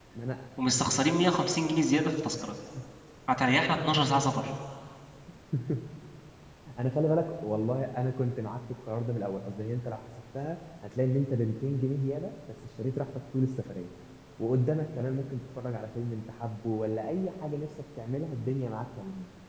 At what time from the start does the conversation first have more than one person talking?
none

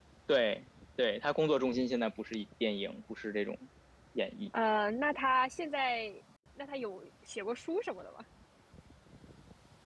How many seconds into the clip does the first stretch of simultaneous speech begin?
none

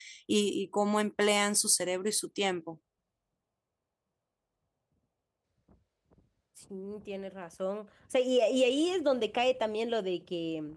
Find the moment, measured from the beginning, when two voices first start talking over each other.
none

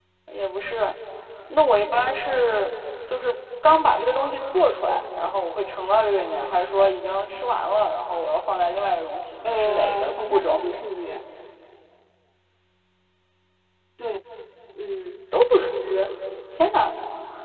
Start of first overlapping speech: 9 s

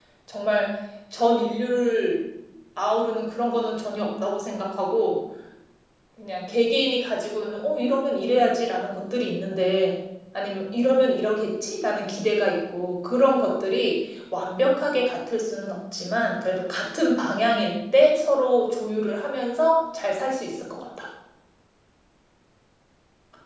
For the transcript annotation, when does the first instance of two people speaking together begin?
none

